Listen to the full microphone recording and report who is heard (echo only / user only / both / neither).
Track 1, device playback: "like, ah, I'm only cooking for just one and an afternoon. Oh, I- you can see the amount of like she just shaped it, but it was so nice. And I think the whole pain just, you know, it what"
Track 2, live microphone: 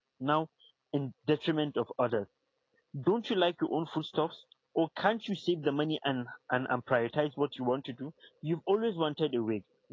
user only